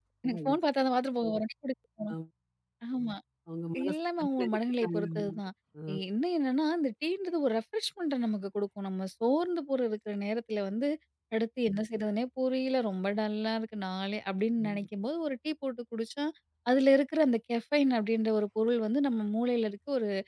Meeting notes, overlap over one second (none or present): present